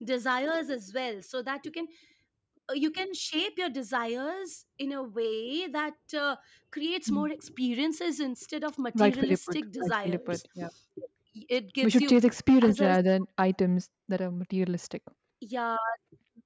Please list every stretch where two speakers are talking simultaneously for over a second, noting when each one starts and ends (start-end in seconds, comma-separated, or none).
9.0-10.4